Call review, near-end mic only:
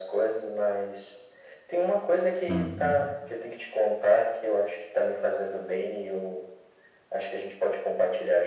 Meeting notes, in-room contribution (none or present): present